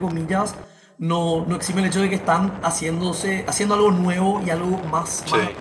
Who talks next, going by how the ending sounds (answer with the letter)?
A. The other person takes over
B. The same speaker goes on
B